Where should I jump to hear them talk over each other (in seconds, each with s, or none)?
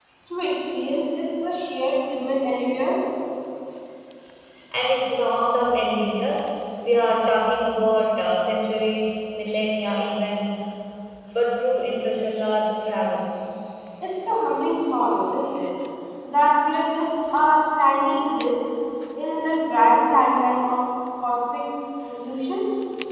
none